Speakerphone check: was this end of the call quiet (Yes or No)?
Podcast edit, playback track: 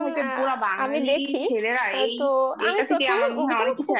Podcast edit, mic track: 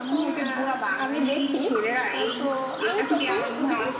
Yes